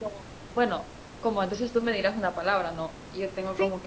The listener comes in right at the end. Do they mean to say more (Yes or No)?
No